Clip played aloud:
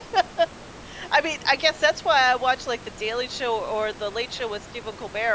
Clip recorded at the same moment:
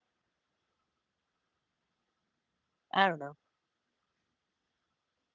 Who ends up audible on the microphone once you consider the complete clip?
user only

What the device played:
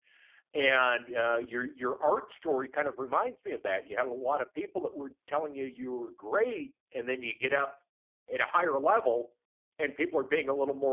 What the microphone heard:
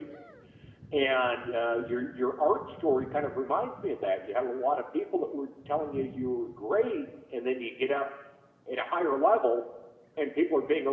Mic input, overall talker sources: echo only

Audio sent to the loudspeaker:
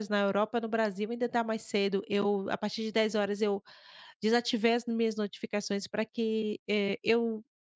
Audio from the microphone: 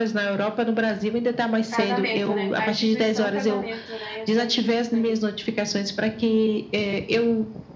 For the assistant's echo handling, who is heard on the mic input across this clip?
both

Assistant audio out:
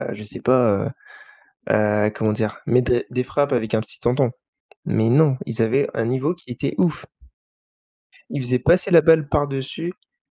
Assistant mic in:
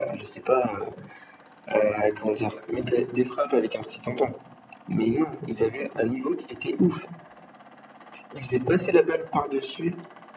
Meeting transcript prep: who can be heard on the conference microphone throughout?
echo only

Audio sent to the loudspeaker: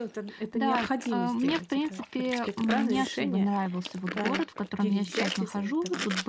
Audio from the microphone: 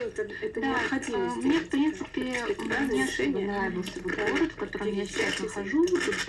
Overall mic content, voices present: both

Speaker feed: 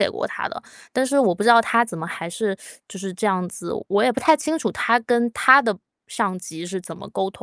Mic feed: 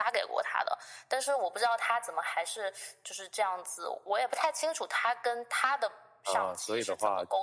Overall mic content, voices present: both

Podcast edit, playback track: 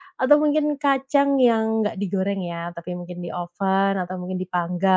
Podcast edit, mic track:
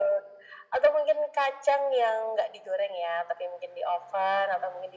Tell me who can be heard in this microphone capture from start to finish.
echo only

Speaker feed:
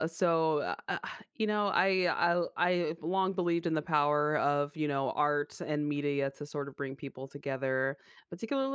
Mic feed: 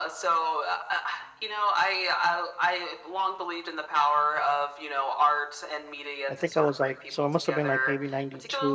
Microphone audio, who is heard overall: both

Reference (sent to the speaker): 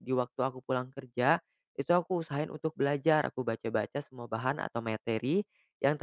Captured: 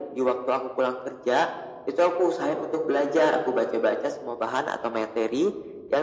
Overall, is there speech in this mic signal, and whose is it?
echo only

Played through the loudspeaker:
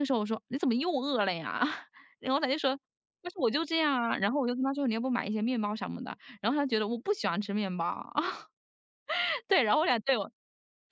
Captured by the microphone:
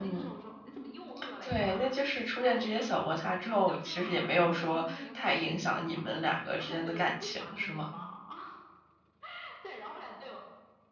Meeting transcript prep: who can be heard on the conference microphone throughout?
both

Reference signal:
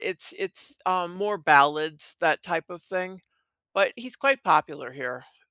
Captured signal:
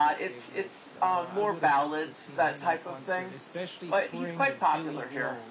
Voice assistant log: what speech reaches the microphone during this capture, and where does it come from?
both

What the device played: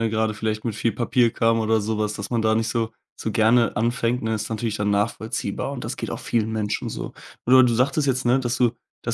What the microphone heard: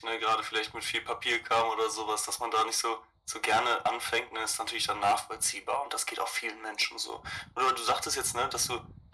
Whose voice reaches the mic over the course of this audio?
echo only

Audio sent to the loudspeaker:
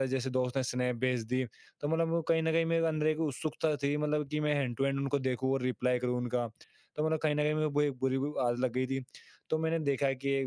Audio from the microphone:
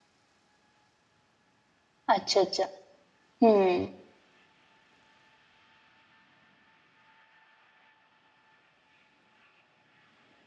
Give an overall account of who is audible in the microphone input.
user only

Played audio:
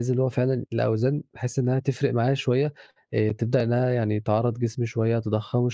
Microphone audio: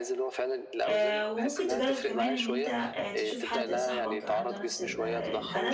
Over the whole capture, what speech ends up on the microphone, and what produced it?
both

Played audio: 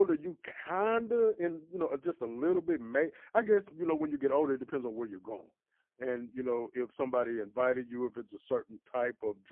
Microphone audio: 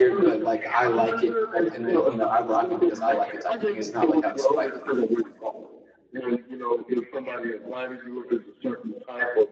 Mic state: both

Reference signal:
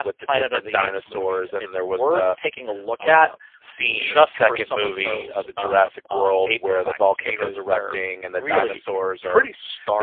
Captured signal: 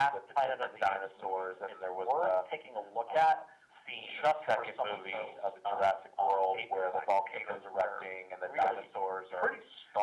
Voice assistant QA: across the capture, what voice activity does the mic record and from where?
echo only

